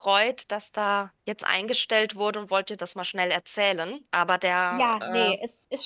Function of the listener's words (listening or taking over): taking over